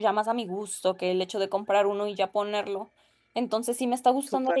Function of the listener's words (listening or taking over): listening